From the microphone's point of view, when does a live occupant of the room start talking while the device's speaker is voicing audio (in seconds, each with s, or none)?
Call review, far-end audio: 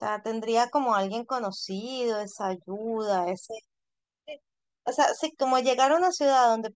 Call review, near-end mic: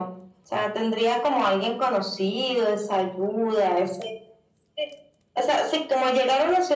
none